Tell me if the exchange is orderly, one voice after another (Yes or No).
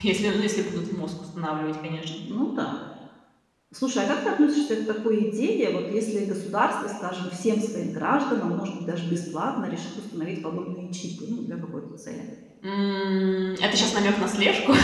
Yes